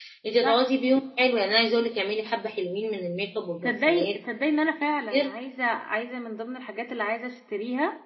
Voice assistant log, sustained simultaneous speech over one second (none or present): none